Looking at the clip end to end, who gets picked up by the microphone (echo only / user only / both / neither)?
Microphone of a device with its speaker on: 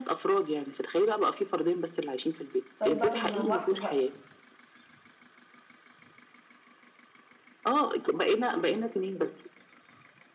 both